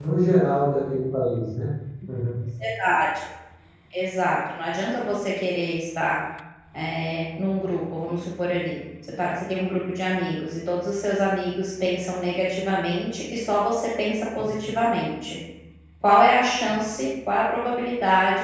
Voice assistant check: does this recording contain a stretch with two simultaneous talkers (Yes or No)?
No